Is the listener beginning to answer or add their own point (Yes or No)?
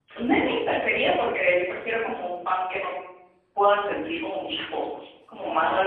No